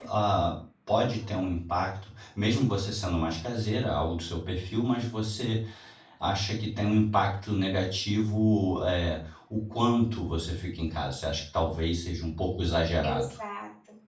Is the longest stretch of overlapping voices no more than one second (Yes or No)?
Yes